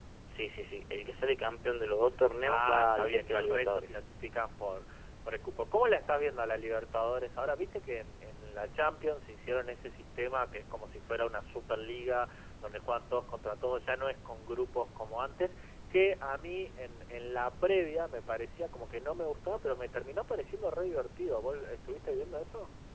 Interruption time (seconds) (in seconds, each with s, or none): 2.4 s